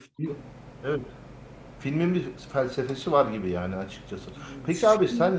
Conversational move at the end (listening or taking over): listening